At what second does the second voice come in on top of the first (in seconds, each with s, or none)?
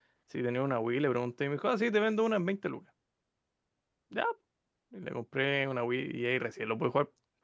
none